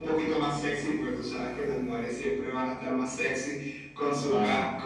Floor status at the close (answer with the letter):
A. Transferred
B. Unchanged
B